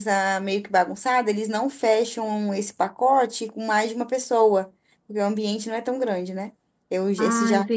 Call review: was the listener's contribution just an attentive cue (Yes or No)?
No